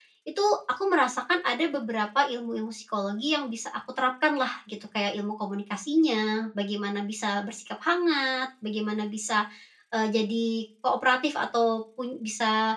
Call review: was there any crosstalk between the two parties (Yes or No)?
No